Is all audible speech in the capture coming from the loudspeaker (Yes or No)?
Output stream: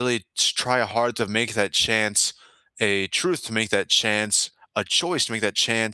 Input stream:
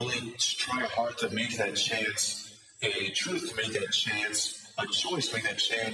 Yes